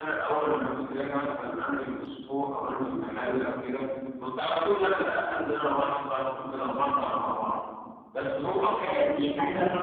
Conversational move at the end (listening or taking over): taking over